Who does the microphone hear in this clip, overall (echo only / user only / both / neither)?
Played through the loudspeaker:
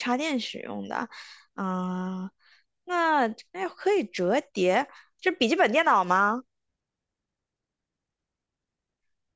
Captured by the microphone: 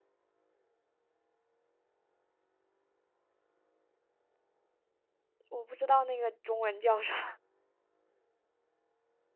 user only